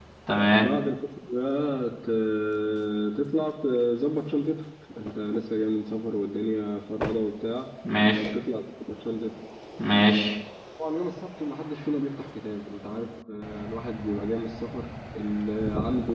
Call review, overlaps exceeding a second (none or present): none